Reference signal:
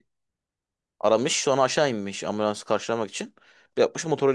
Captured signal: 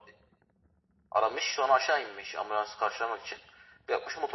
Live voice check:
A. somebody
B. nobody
B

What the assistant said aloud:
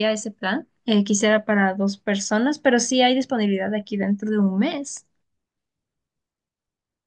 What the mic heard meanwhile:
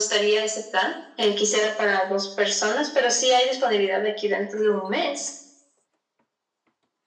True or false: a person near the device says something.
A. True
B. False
B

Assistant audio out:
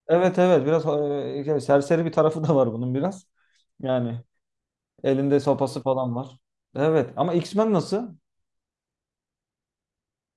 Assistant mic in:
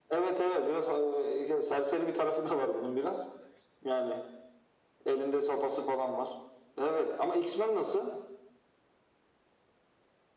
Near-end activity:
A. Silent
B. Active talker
A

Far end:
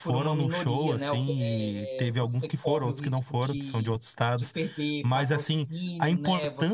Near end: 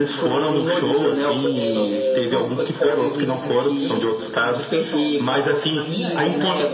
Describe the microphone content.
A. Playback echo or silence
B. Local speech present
B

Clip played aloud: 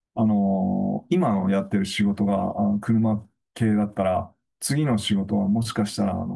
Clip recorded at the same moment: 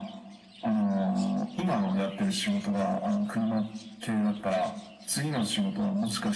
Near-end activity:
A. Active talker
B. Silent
B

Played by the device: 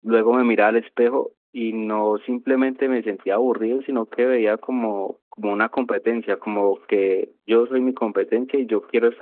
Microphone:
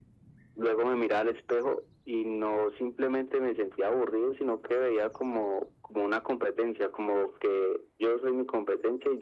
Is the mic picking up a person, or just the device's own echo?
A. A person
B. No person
B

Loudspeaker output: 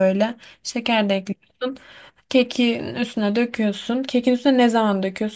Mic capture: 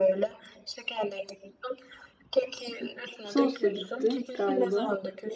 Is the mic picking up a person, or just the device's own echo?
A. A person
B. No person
A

